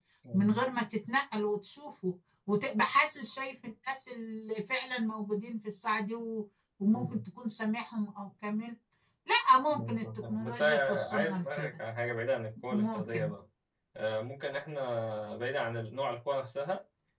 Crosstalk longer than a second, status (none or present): present